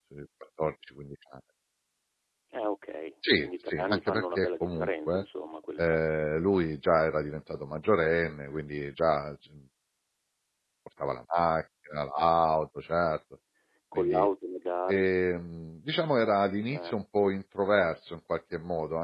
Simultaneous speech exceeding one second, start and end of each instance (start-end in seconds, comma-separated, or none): 3.4-5.2